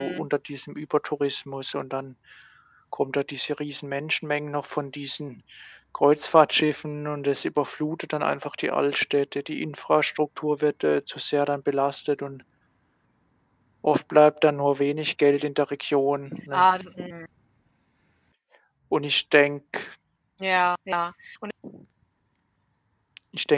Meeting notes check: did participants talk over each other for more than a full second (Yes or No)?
No